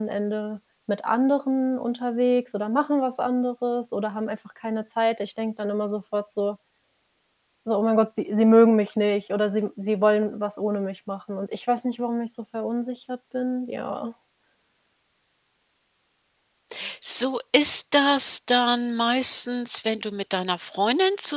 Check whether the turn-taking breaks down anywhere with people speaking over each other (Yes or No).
No